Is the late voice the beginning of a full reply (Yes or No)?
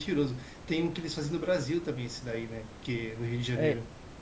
Yes